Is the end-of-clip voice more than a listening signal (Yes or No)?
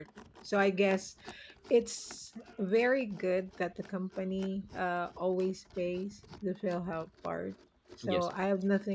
No